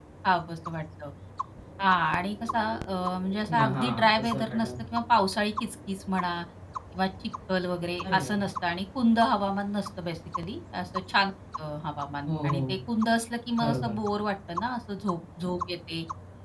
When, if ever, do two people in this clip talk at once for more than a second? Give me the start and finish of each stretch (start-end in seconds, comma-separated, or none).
3.5-4.7